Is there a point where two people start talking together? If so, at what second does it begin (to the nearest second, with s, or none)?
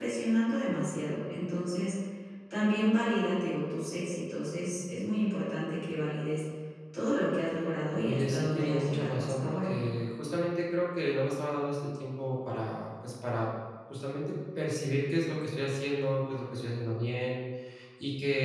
8 s